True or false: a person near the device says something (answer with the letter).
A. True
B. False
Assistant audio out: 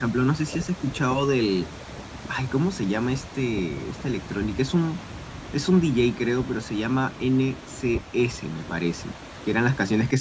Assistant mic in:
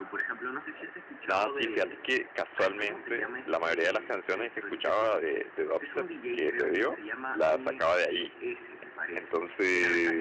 A